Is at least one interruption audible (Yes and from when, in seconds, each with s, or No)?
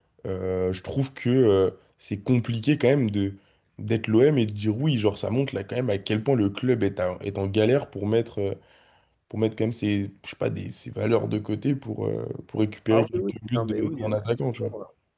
Yes, from 12.9 s